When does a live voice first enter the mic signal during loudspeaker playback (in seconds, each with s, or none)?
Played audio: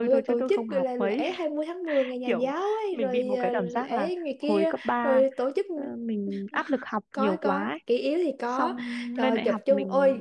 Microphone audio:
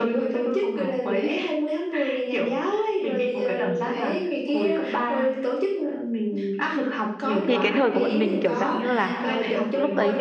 7.4 s